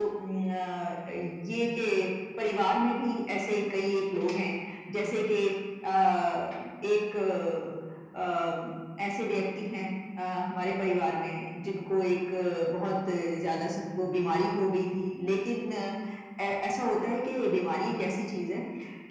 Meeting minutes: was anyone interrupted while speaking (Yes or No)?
No